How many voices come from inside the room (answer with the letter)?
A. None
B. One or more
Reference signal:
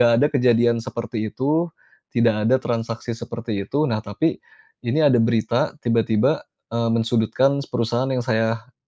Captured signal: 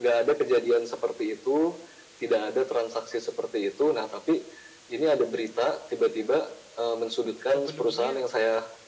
B